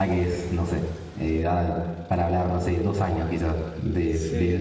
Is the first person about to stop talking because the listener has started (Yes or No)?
Yes